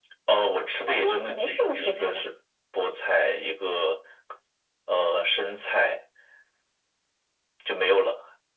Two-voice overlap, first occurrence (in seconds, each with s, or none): 0.9 s